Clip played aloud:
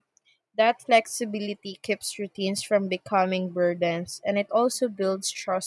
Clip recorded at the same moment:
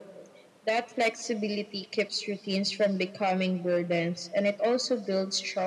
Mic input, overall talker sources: echo only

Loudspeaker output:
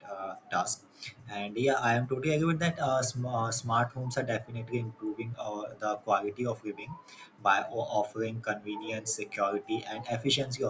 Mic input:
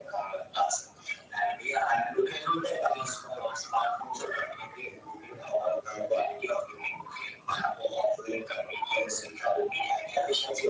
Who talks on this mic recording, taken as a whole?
echo only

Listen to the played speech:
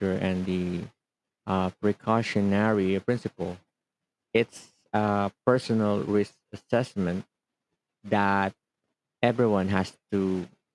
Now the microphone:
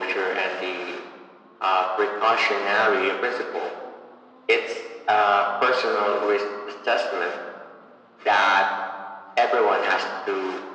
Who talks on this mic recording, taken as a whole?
echo only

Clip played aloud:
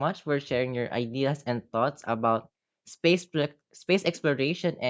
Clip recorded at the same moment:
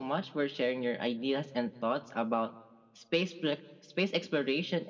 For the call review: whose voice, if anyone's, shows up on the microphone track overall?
echo only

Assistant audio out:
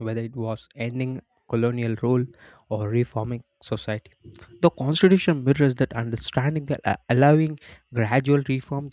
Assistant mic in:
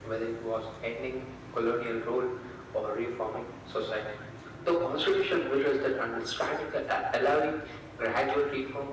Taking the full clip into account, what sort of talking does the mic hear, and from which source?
echo only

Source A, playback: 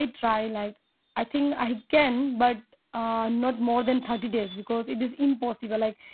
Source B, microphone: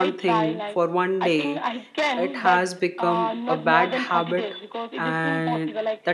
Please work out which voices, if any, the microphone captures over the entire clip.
both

